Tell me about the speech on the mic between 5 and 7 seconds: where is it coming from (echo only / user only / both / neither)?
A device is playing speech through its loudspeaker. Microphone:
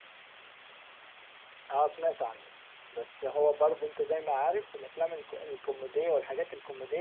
user only